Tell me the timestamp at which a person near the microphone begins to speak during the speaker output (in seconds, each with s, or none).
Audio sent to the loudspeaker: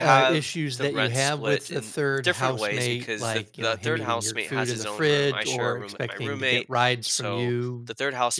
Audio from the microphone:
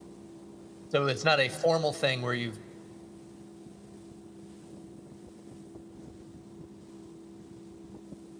0.9 s